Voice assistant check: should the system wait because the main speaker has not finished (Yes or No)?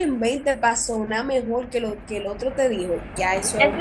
No